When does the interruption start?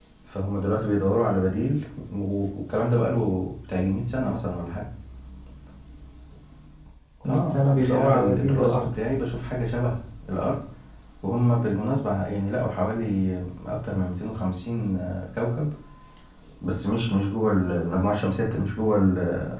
7.3 s

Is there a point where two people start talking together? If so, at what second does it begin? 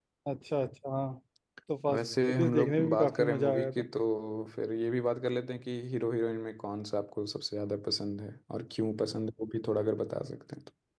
1.9 s

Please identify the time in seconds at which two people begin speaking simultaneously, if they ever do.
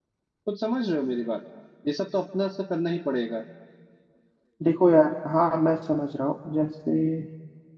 none

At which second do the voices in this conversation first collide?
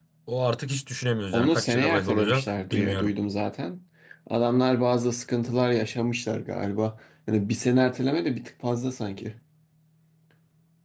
1.3 s

